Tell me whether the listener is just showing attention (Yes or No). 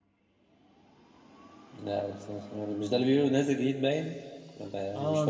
No